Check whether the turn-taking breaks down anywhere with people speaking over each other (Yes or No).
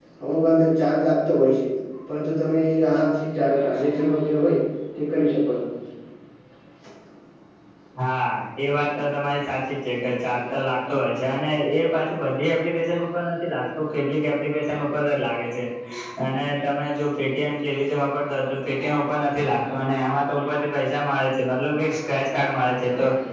No